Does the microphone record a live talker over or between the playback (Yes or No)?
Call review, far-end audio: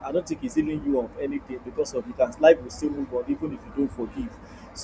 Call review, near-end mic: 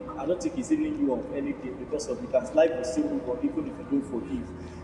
No